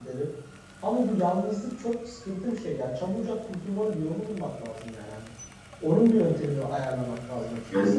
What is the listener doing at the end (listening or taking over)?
listening